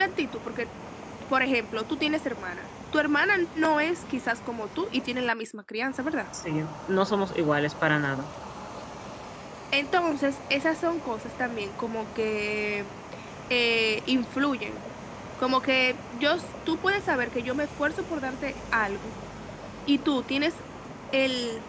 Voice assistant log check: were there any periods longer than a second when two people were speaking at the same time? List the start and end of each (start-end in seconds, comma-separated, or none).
none